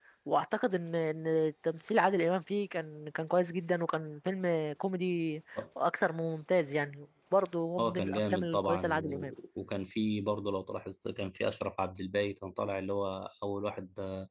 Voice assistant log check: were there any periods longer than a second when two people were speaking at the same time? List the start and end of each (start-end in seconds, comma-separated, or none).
7.8-9.3